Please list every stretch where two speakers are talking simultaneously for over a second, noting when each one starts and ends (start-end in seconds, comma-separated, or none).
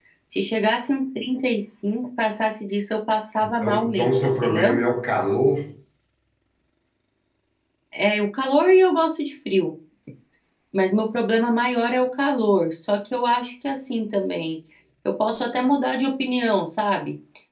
3.4-4.8